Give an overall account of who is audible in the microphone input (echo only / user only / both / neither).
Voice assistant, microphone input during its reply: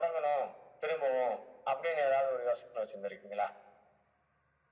echo only